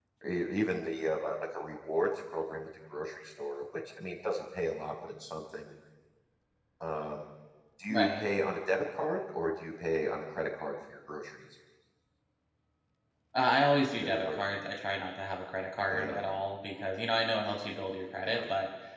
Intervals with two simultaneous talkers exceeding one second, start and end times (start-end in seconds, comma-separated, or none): none